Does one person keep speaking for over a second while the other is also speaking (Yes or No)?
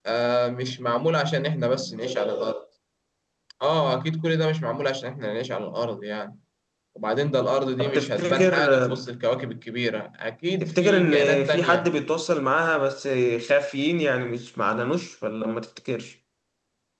Yes